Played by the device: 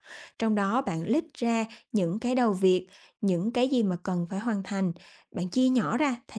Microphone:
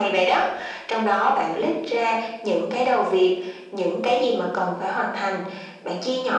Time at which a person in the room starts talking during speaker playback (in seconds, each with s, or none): none